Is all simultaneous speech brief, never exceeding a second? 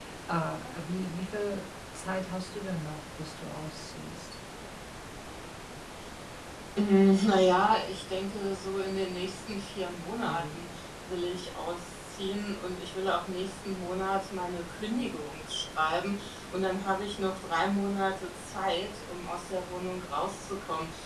Yes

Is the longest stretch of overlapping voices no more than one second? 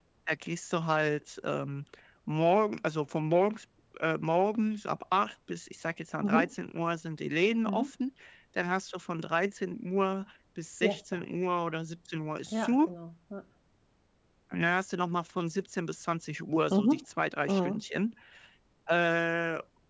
Yes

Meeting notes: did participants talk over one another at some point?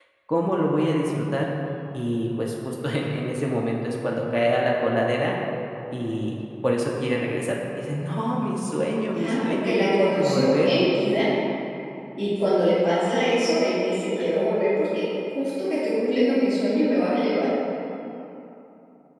Yes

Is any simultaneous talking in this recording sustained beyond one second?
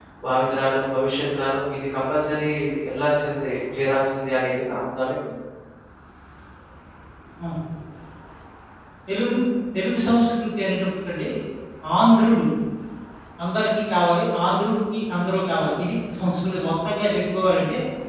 No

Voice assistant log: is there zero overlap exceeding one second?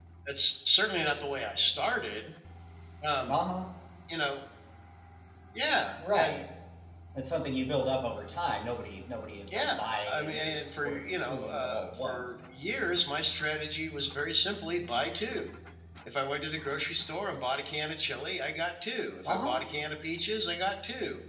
No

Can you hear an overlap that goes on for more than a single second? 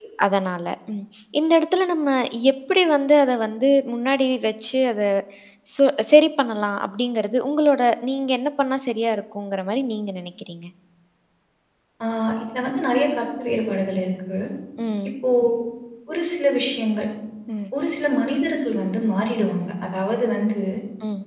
No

